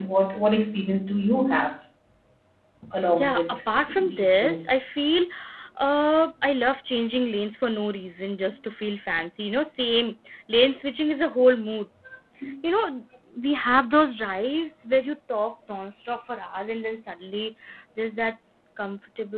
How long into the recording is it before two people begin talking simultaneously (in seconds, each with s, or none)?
3.1 s